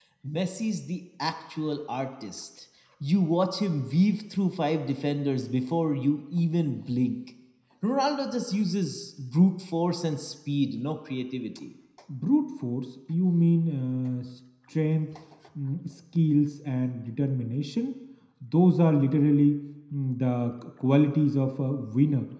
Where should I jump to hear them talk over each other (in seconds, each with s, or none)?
none